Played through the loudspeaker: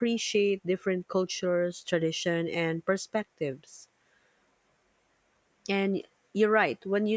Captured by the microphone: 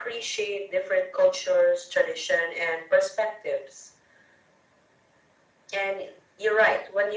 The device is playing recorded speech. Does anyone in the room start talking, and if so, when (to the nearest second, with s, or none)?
none